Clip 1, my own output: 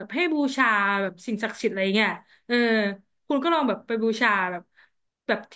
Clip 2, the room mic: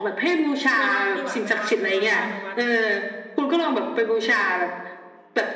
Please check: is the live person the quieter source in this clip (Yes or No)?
Yes